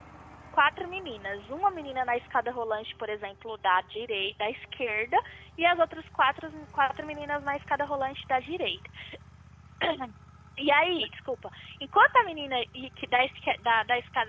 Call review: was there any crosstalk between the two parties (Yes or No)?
No